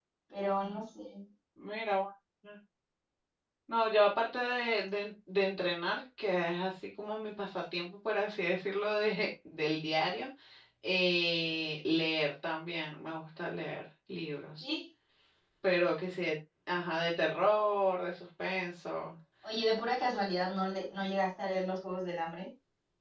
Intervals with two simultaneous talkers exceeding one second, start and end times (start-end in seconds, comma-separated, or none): none